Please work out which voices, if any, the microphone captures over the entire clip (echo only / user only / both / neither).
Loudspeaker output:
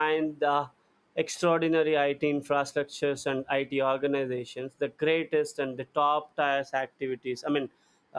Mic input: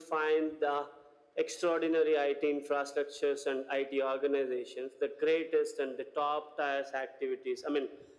echo only